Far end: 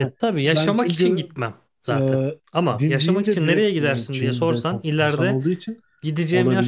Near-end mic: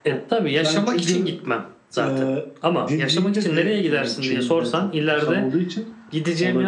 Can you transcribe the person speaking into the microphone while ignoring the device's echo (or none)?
none